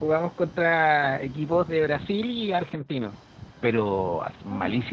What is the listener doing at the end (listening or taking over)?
listening